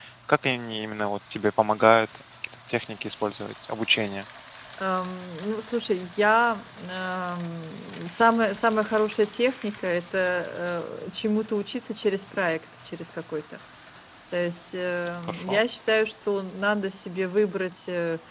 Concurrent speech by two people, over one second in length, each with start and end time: none

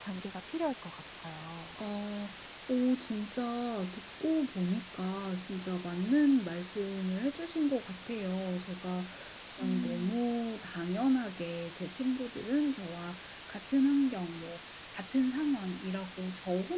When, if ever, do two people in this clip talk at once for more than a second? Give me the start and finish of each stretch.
none

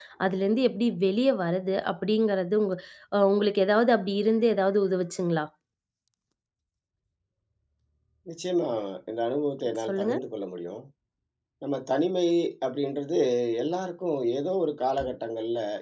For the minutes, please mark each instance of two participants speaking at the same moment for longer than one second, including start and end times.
none

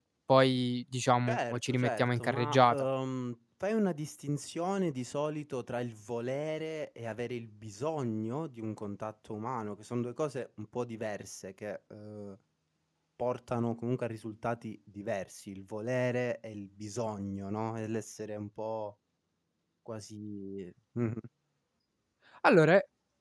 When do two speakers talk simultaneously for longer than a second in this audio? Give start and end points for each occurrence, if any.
1.3-2.8

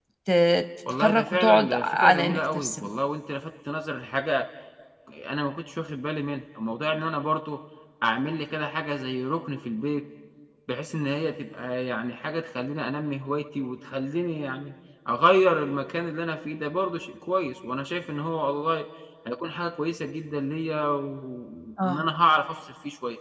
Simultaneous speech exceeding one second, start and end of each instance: 0.9-2.8

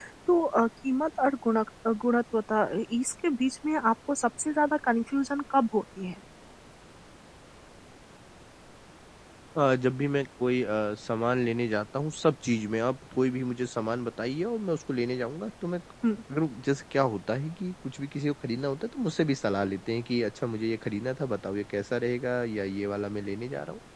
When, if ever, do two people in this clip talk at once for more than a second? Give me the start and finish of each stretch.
none

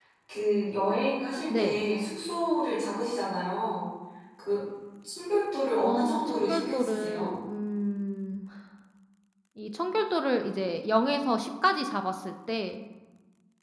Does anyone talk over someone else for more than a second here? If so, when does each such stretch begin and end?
5.8-7.3

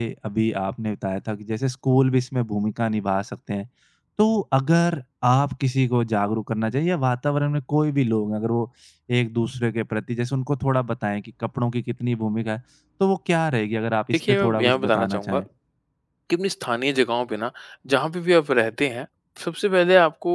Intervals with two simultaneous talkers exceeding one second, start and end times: 14.1-15.4

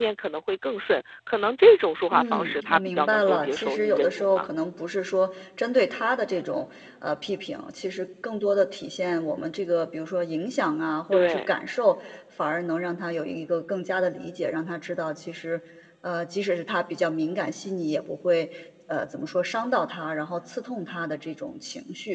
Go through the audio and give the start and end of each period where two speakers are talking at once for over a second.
2.1-4.5

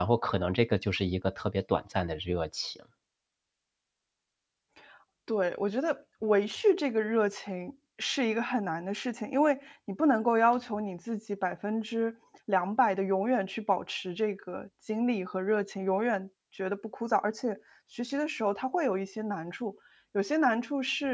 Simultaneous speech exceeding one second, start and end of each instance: none

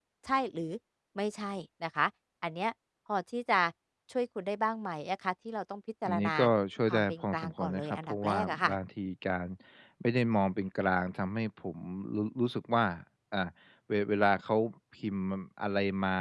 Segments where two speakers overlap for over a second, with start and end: 6.9-8.7

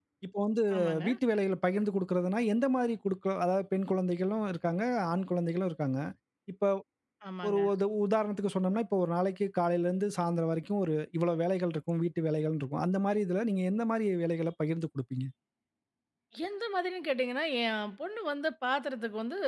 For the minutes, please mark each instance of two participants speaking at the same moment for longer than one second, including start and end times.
none

